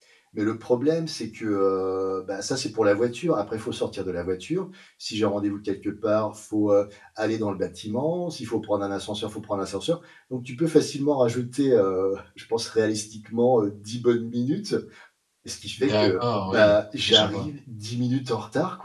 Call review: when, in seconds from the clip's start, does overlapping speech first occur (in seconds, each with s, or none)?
15.8 s